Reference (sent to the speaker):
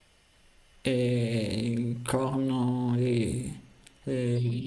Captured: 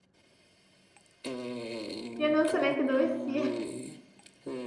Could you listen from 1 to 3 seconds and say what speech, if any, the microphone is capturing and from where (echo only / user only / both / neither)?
both